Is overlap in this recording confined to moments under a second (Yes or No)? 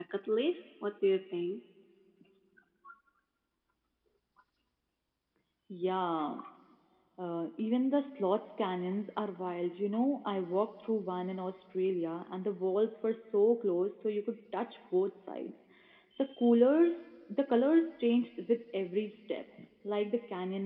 Yes